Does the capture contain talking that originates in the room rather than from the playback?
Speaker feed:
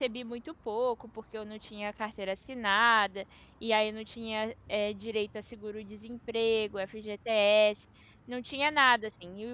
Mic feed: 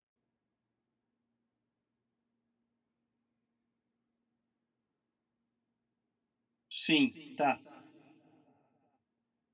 Yes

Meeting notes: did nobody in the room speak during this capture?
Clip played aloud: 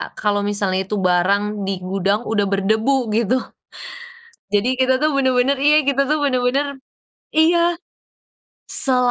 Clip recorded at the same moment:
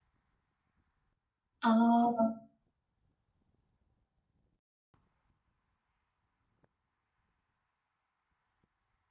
No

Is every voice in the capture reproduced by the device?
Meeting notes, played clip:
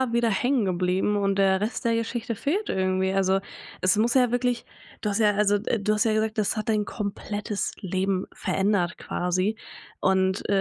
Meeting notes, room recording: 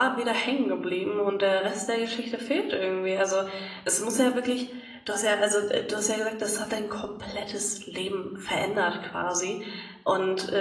Yes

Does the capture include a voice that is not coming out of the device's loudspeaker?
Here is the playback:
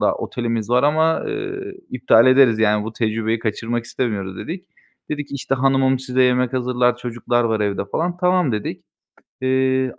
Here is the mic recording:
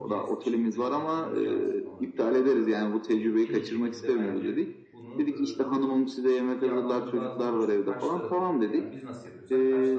Yes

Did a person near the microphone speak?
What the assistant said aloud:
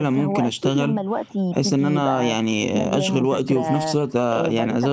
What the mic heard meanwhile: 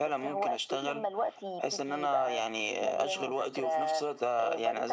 No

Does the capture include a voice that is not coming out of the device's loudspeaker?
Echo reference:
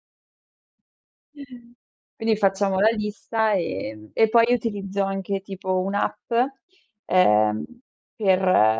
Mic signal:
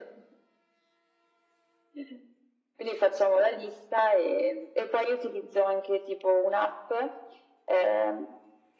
No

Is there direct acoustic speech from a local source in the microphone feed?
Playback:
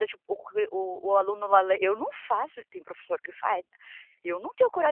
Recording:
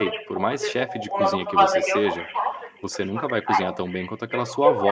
Yes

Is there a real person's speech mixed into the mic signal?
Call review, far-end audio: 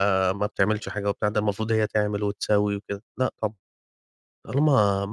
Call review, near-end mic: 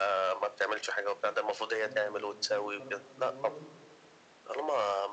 Yes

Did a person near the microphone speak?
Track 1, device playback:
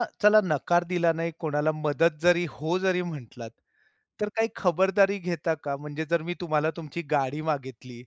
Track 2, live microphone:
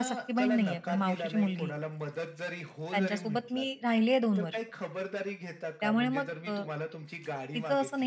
Yes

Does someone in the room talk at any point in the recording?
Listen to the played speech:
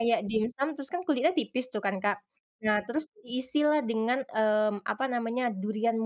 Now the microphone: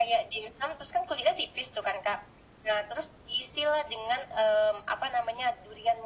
No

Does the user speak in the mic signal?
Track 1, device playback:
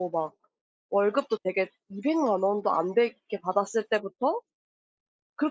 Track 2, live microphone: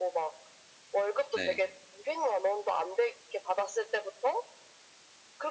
Yes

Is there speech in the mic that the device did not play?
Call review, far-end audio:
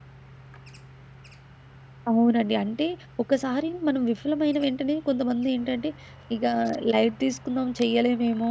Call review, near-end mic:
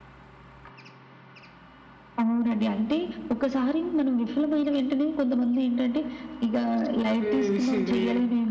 Yes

